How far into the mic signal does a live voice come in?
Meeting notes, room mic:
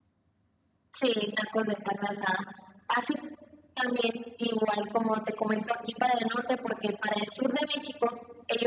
none

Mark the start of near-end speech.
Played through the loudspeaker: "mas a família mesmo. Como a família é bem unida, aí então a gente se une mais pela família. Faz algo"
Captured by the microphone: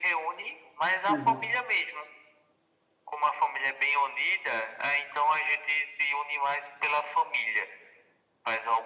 1.1 s

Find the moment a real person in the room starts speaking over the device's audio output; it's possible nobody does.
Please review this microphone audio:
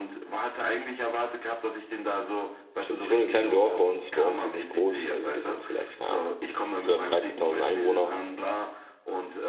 2.8 s

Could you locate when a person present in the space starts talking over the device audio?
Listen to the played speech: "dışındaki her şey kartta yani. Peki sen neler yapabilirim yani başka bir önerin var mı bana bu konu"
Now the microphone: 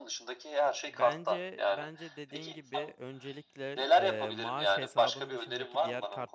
0.9 s

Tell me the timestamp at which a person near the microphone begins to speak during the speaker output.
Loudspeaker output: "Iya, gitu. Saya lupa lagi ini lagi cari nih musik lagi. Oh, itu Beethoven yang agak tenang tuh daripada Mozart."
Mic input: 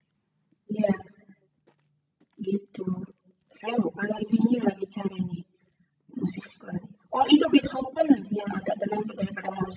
none

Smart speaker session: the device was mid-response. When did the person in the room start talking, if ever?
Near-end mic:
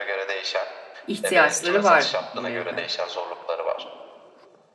1.1 s

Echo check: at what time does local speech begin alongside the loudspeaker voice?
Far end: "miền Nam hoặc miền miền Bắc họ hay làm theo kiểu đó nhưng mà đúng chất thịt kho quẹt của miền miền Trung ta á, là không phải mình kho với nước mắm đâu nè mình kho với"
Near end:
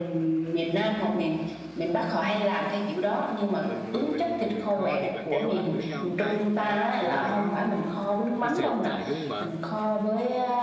3.6 s

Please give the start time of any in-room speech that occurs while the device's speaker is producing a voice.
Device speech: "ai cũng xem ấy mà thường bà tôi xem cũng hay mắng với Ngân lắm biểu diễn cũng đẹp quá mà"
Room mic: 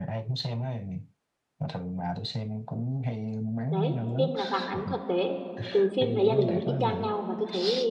3.7 s

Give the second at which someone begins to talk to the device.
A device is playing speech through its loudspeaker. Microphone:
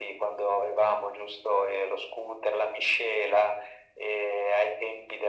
none

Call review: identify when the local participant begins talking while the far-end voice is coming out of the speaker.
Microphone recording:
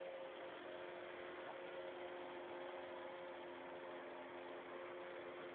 none

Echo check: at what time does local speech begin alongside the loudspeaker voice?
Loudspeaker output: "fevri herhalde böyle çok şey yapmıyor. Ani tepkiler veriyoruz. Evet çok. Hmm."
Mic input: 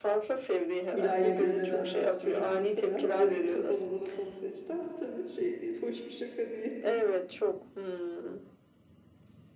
0.9 s

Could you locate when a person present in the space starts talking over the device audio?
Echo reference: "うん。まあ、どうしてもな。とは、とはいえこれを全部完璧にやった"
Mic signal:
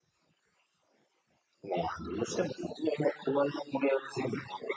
none

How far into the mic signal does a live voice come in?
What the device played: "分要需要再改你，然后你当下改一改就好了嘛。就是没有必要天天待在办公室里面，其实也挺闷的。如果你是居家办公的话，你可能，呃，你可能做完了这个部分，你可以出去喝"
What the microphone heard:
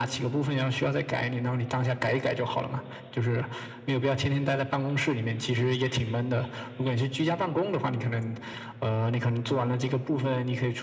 none

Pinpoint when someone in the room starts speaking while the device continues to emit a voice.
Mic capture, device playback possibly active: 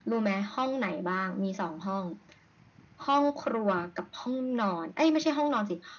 none

